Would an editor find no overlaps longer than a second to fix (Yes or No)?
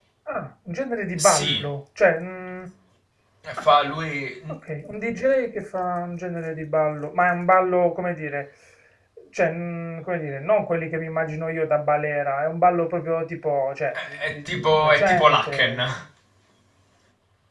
No